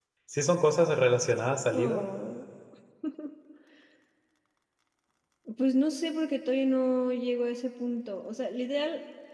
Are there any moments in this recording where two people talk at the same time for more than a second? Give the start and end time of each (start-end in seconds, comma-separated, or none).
none